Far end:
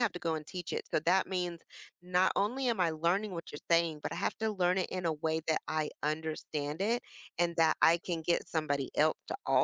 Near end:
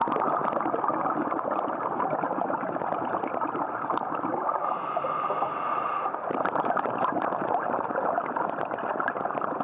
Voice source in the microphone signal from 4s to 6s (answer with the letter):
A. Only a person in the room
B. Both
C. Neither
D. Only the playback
C